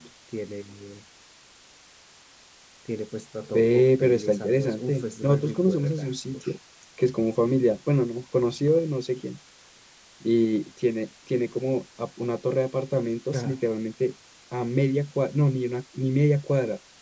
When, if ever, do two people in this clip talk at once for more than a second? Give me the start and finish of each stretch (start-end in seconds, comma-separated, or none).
3.5-6.5